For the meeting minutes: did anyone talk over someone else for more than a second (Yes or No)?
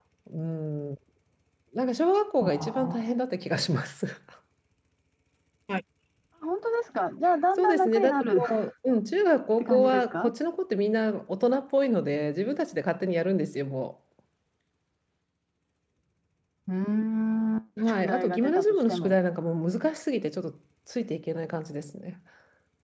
Yes